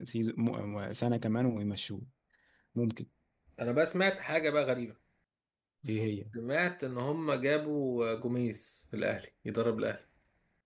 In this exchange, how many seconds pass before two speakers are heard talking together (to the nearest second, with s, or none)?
none